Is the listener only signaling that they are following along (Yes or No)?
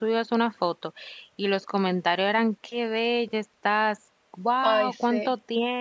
Yes